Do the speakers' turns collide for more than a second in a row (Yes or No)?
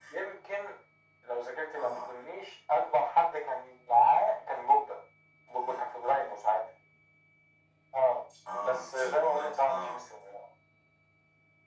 Yes